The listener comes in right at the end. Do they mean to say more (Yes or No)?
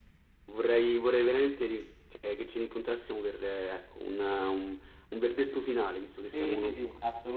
Yes